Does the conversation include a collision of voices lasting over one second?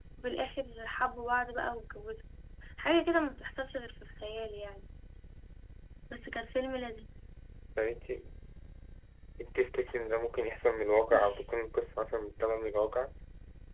No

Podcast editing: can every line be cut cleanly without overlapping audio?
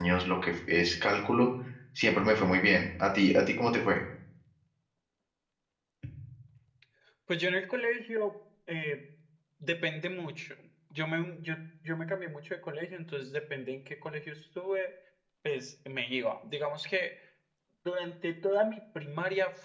Yes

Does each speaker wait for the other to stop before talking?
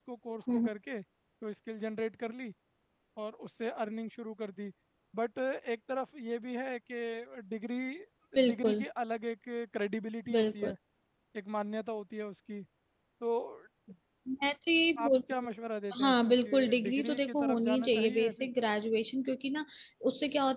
No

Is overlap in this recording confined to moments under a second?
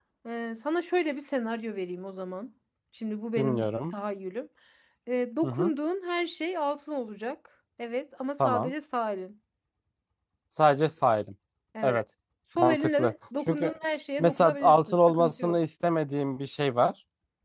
No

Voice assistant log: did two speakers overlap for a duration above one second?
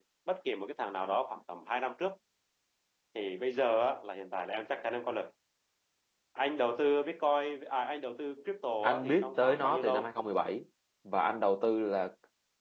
Yes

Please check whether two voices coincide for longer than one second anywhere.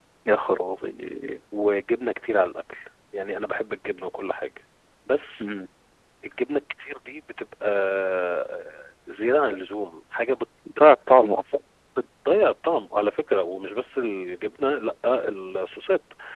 No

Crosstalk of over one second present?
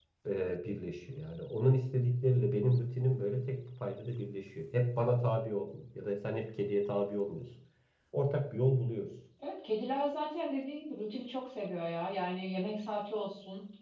No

